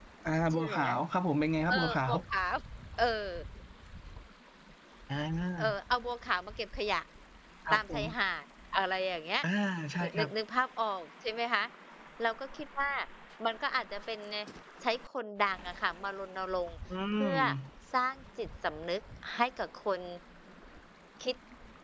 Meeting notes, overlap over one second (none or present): none